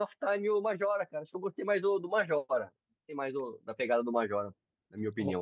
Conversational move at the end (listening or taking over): taking over